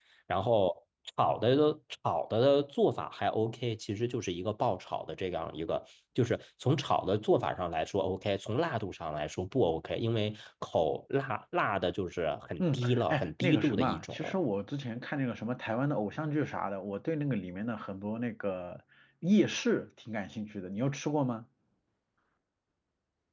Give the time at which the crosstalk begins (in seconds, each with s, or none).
12.6 s